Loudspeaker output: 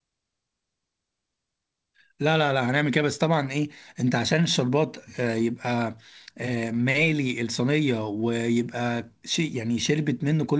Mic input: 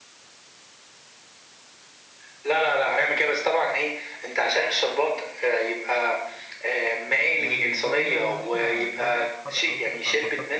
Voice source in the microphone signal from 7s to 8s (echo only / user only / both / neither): both